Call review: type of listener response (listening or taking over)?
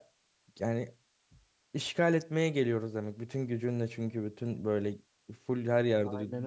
listening